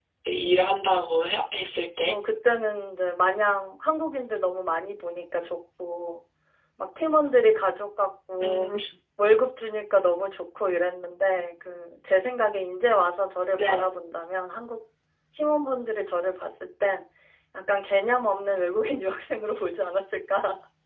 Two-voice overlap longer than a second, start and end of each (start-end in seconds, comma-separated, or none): none